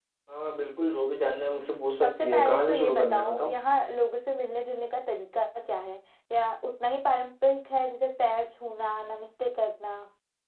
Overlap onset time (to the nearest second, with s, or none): 2 s